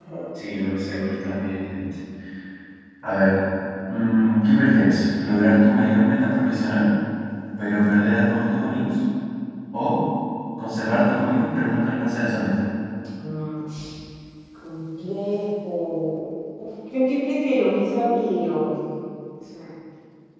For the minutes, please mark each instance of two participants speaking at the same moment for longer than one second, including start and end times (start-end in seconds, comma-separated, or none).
none